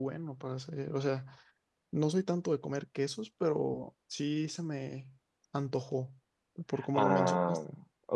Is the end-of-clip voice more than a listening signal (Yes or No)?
Yes